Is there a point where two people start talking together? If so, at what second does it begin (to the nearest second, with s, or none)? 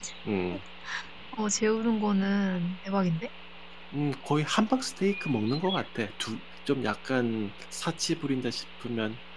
none